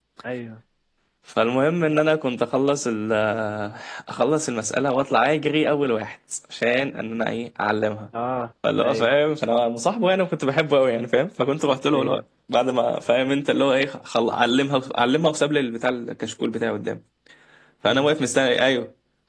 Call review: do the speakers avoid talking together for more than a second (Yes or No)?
Yes